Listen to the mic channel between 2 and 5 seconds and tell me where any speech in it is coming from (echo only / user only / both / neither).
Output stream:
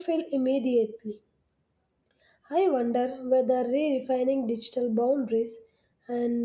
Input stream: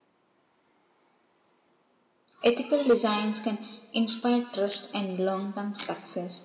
user only